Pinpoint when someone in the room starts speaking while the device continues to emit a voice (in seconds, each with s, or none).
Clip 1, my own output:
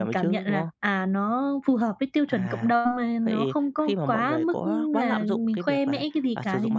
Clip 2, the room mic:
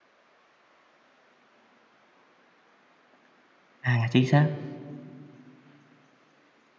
3.8 s